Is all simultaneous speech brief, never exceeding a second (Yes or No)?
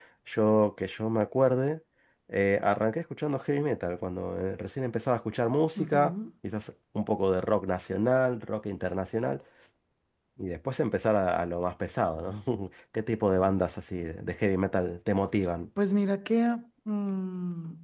Yes